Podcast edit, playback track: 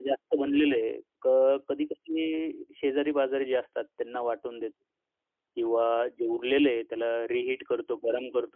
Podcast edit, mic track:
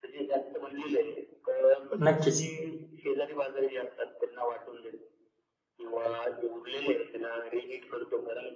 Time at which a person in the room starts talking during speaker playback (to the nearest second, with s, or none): 2 s